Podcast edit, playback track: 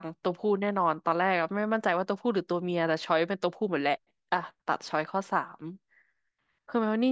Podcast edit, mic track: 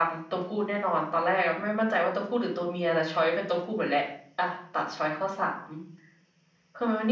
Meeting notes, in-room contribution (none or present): none